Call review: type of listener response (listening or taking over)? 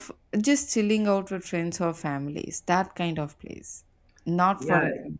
taking over